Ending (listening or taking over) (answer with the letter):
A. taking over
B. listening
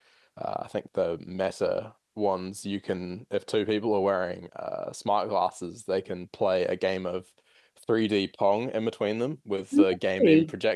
B